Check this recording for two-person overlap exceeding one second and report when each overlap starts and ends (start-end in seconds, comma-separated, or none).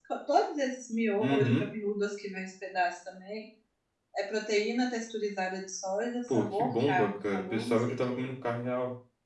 6.3-8.2